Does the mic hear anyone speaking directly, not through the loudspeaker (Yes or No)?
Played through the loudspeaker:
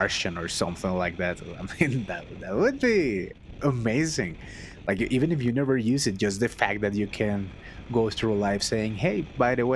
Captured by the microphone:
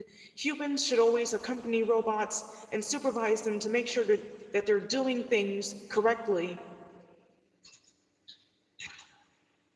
Yes